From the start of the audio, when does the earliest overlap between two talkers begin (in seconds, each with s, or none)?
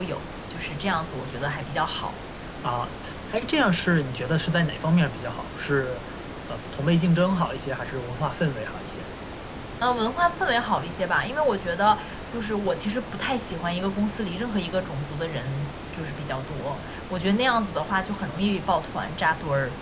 none